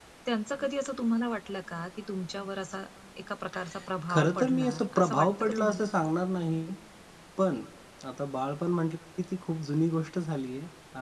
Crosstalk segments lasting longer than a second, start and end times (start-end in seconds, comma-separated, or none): 4.1-5.8